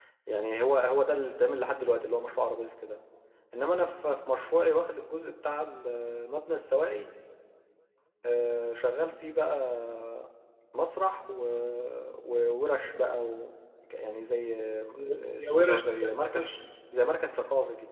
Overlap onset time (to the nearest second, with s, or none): 15 s